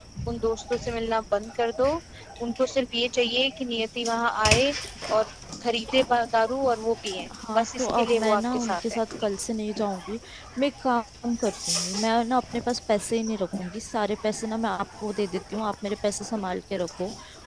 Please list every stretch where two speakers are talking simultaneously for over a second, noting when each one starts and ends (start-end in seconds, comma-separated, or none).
7.6-9.0